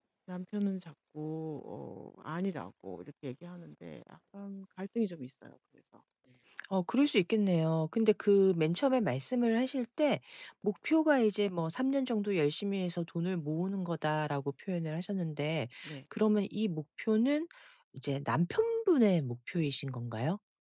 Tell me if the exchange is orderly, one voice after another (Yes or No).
Yes